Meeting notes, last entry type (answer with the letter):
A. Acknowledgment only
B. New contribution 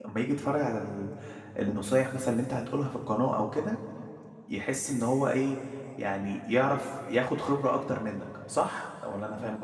B